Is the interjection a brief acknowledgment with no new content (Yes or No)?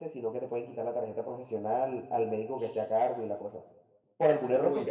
Yes